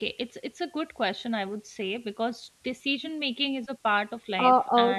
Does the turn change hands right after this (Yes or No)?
Yes